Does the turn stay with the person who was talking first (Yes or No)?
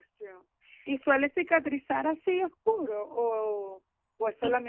Yes